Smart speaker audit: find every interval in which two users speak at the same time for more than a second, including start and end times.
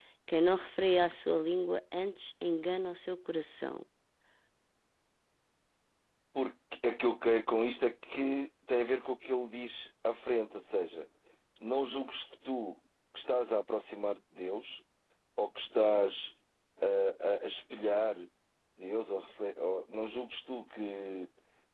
none

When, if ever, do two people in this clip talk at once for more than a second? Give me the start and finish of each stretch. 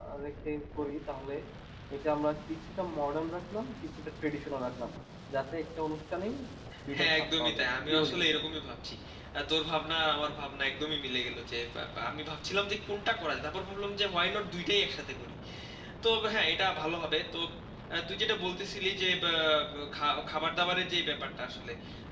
7.0-8.2

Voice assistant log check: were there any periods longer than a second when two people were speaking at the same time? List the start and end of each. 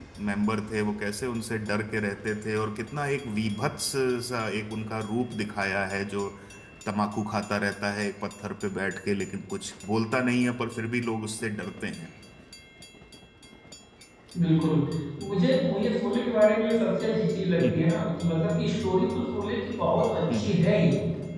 none

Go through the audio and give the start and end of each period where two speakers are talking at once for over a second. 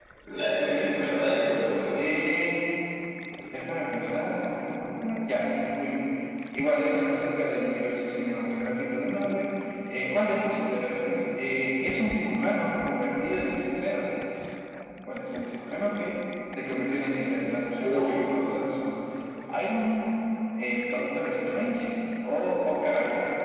0.6-2.0

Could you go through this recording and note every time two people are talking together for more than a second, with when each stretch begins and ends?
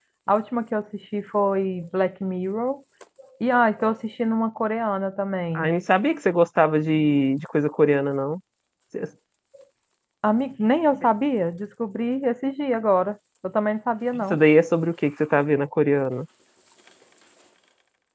none

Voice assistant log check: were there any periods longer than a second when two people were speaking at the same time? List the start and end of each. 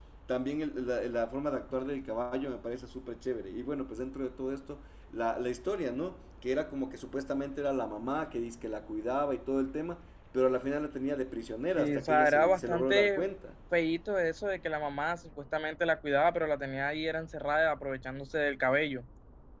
11.8-13.2

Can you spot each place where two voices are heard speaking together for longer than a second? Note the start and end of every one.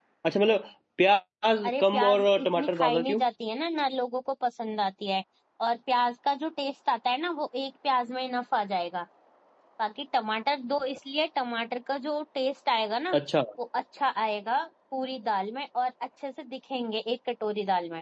1.6-3.2

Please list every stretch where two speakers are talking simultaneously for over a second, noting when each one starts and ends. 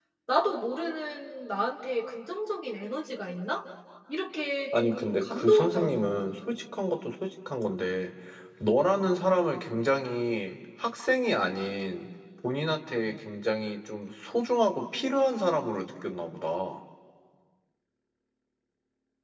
4.8-6.2

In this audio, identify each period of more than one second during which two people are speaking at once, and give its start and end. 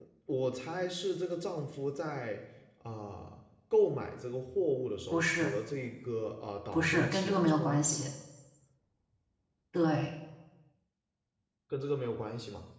6.7-8.0

